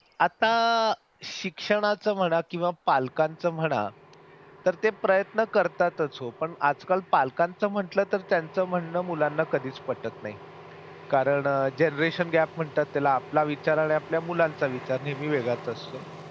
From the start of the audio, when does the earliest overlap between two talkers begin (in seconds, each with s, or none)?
none